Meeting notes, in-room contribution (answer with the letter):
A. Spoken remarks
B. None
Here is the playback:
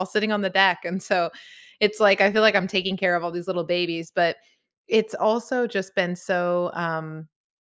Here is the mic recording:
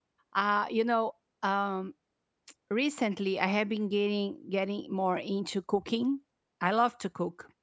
A